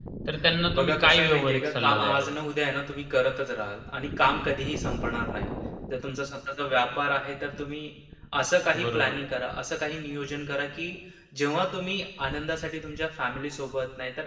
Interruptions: present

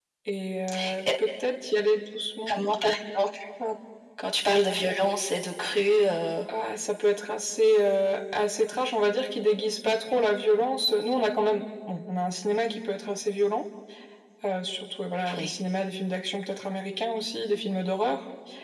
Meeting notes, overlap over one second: none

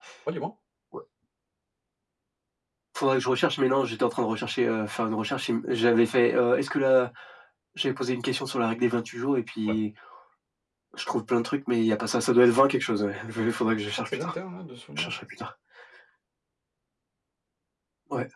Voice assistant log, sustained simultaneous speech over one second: none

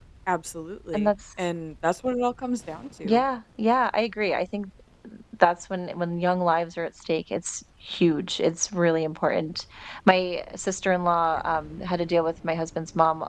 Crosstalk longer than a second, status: none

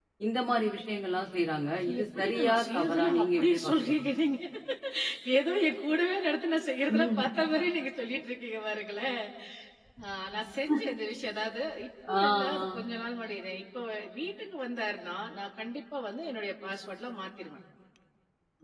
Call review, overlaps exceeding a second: present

